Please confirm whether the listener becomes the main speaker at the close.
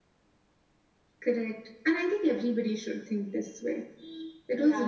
Yes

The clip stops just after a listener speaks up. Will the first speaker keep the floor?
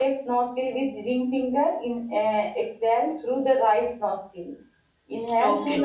Yes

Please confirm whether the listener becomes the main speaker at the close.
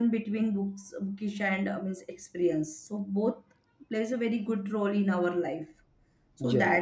No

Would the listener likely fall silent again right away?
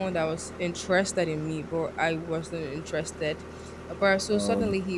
Yes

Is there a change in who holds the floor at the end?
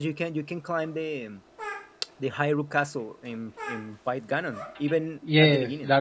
Yes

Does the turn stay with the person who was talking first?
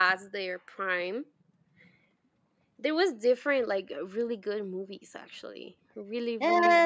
No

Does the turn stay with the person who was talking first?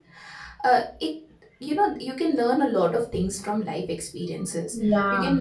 Yes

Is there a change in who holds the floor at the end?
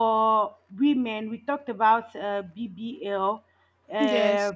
No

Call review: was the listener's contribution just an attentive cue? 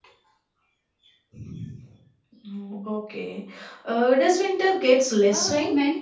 No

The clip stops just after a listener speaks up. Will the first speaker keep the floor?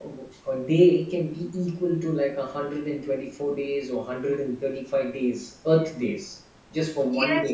No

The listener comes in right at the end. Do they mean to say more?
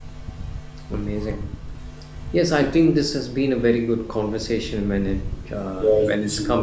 Yes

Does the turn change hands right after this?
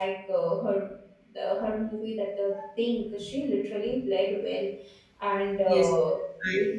Yes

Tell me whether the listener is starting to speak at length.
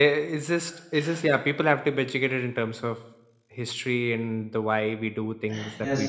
Yes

